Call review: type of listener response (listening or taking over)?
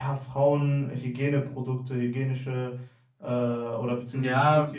taking over